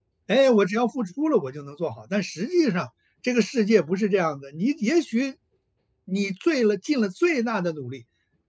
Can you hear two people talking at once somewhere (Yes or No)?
No